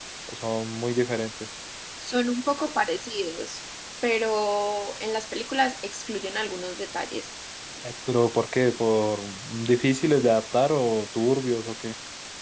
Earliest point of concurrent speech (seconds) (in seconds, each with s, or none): none